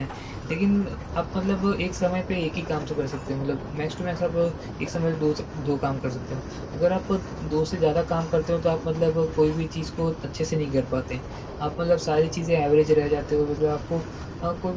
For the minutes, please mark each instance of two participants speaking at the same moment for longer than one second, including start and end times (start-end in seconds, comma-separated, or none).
none